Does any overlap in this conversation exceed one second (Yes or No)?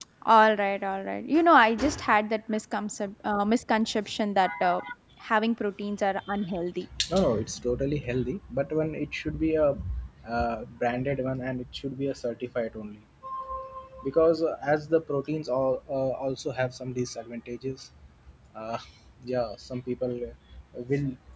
No